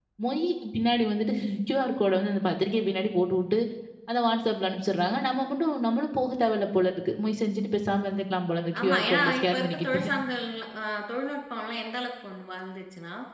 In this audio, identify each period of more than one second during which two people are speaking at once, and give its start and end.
8.8-10.0

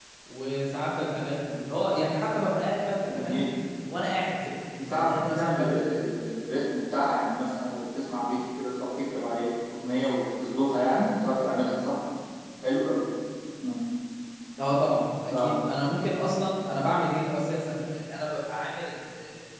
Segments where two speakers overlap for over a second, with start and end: 4.8-6.0

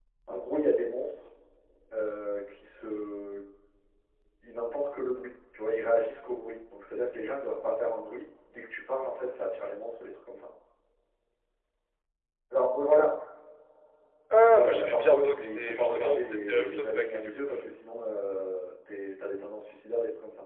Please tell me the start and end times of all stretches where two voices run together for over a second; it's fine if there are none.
14.5-17.3

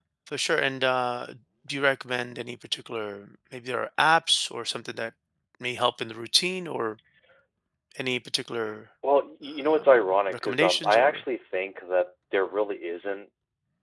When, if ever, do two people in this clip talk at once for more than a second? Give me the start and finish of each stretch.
9.7-11.2

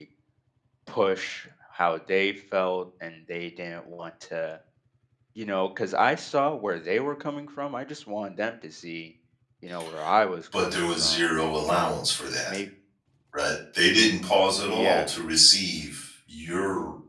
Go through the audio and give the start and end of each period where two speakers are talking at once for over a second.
10.5-12.0

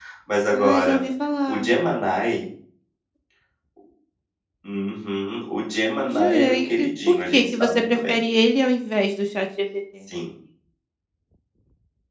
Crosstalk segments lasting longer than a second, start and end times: 6.1-8.2

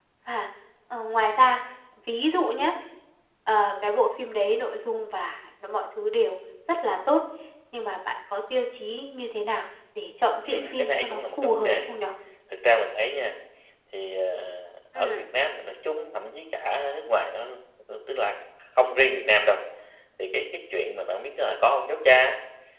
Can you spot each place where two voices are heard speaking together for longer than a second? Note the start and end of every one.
10.4-11.8

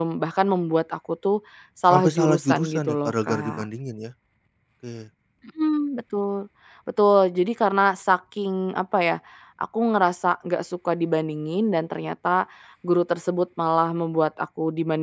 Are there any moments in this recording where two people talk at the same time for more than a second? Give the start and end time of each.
1.9-3.7

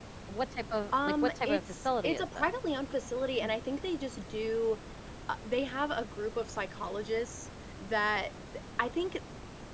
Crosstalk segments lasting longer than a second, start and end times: 1.0-2.5

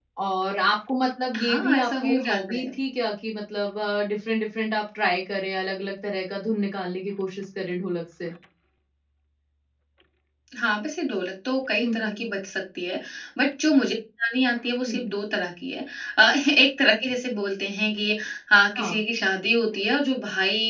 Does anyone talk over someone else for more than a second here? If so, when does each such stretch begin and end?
1.4-2.7

